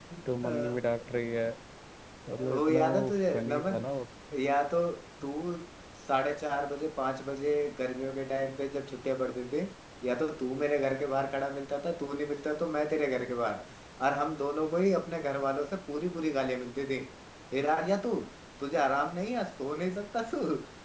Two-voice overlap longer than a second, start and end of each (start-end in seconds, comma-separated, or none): 2.5-3.8